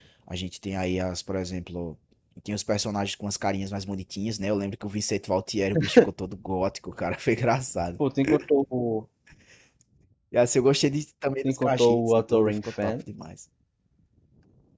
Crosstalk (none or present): present